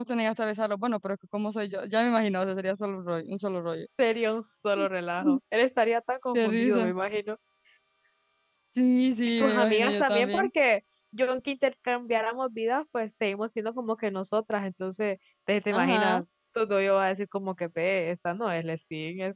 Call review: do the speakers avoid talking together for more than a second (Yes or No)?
No